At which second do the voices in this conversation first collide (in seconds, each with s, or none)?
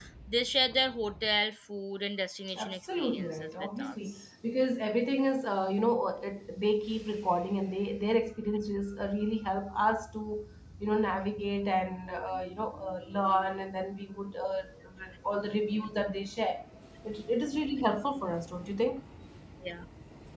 2.5 s